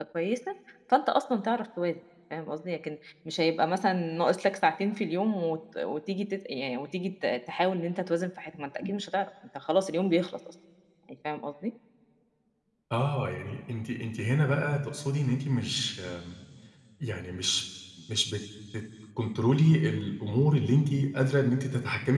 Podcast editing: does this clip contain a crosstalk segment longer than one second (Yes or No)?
No